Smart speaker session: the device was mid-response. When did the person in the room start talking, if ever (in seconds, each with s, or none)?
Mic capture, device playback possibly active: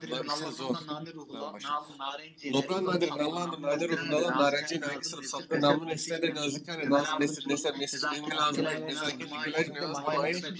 8.3 s